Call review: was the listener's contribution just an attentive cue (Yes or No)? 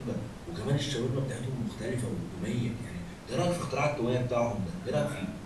No